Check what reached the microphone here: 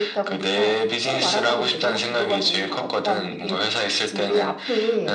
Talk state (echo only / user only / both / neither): echo only